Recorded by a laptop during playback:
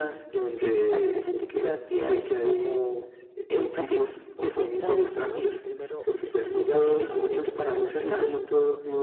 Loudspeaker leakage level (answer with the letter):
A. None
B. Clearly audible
B